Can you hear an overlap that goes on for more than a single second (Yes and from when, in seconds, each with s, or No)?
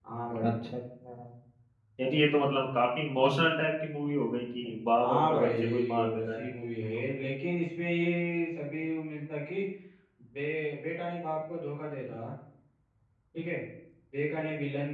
Yes, from 5.0 s